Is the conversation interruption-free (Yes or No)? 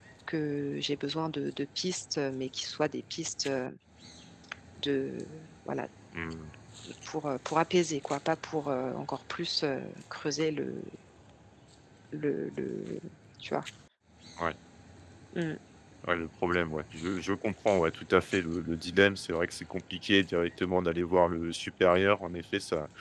Yes